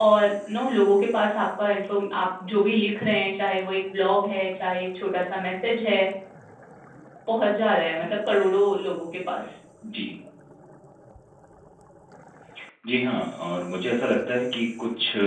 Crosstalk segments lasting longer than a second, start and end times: none

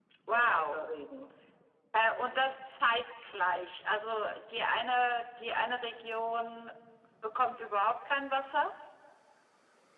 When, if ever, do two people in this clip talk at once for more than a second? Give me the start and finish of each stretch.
none

